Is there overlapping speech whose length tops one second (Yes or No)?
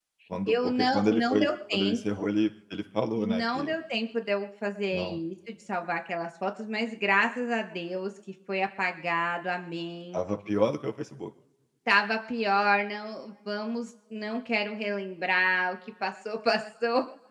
Yes